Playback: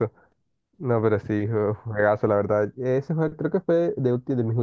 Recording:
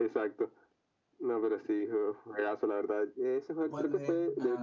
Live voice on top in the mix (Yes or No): No